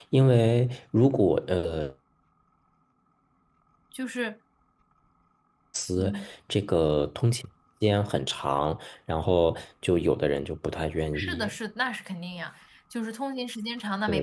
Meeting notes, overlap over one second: none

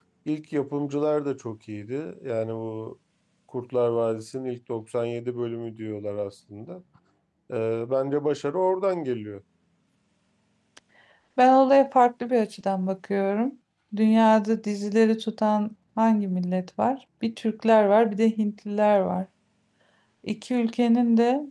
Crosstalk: none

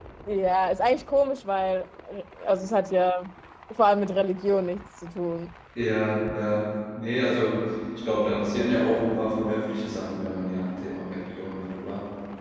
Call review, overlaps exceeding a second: none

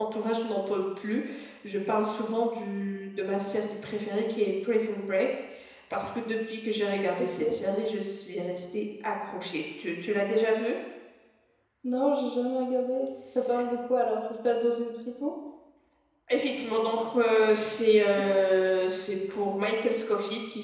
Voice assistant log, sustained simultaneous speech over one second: none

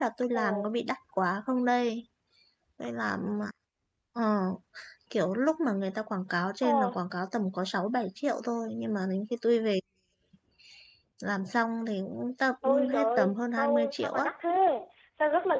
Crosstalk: present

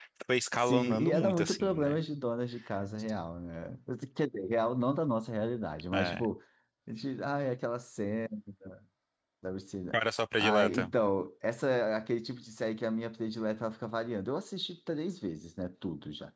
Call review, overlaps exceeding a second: present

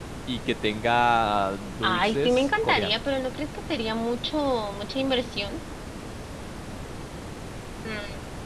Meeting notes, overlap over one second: present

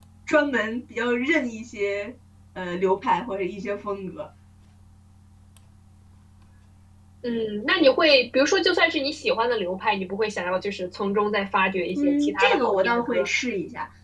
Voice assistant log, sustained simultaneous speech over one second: present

